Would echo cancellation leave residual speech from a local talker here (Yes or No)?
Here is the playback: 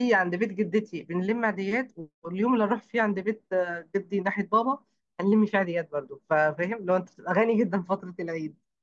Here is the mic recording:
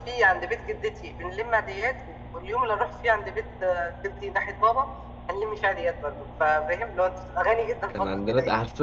Yes